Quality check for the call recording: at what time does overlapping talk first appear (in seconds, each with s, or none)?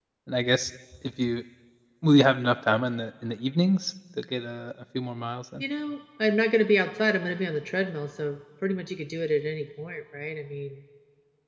none